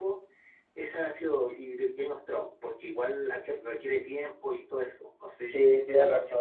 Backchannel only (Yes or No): No